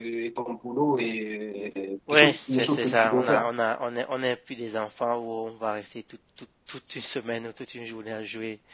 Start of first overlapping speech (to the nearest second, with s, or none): 2 s